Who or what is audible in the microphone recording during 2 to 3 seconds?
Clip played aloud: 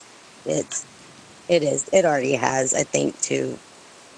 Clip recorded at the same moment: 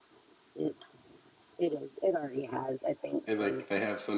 echo only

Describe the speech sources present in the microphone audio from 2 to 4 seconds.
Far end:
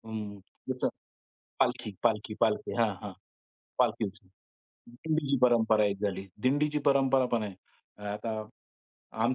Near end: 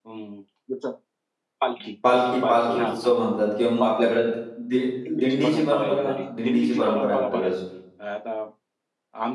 both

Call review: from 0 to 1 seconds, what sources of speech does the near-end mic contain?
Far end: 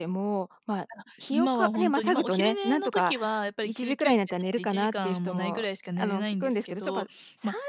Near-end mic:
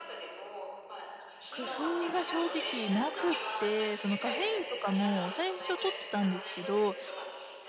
echo only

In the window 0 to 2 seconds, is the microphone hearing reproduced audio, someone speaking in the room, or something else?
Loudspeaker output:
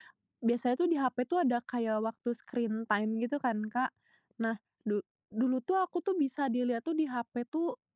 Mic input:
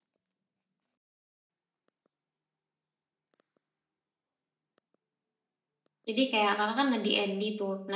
neither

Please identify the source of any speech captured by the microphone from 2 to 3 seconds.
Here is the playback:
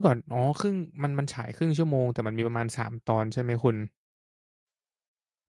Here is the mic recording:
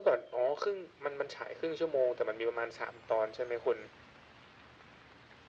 echo only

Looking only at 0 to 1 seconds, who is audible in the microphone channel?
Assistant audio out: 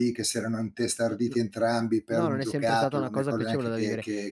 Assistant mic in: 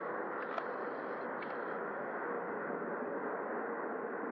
neither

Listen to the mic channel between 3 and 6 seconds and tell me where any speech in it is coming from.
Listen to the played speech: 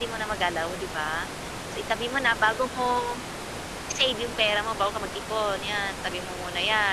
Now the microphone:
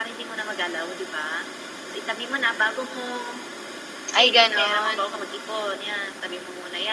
both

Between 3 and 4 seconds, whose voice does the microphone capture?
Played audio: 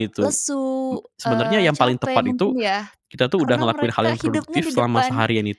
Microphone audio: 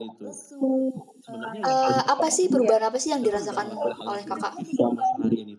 both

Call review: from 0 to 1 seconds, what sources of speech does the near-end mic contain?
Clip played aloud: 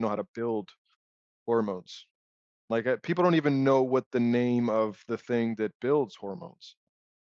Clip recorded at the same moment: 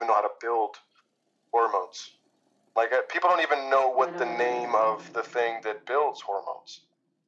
echo only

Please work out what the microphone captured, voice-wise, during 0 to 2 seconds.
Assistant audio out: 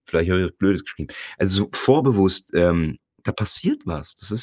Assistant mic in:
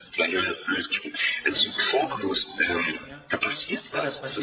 both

